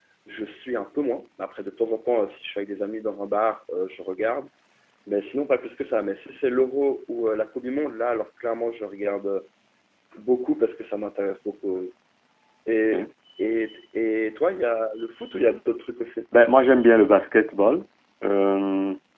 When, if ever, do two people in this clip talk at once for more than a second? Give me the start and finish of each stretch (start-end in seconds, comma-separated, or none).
none